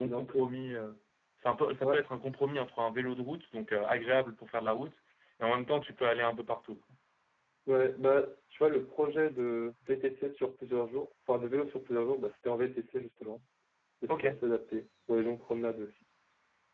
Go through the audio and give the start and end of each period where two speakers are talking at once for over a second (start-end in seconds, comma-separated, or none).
none